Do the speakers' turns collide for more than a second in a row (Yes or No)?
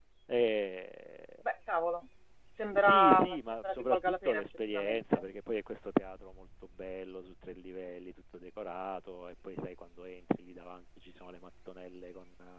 Yes